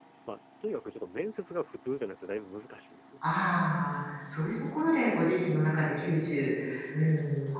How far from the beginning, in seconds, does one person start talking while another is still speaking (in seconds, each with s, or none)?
none